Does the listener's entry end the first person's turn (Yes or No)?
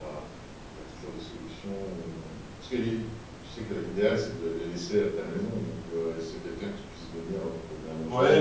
Yes